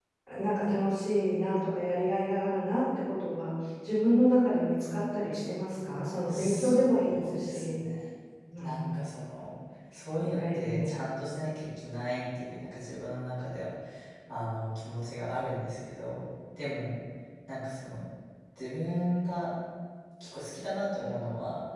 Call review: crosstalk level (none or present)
present